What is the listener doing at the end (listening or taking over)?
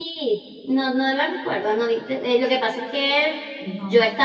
listening